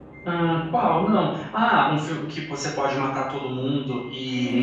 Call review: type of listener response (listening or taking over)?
taking over